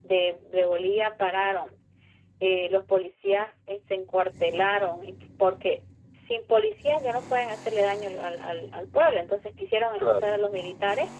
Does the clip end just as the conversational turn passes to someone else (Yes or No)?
No